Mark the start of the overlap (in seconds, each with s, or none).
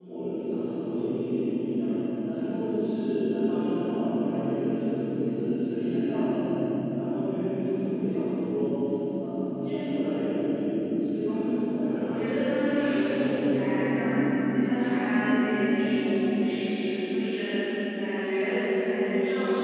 11.8 s